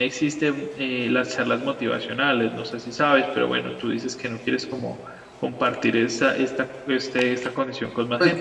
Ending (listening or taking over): taking over